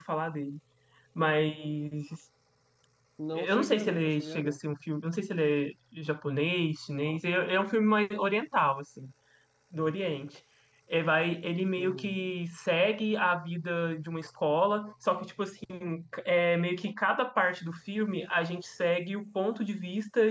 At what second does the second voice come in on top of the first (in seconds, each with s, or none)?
3.3 s